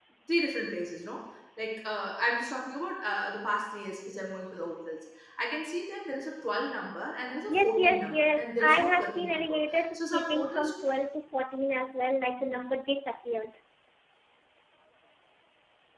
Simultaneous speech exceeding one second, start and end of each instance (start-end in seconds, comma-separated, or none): 7.5-10.7